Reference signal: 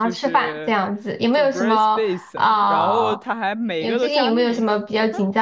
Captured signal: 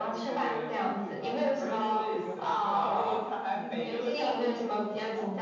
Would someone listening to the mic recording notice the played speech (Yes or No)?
Yes